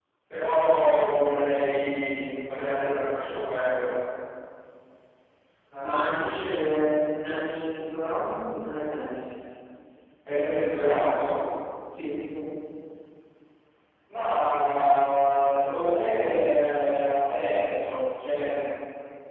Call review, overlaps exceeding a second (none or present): none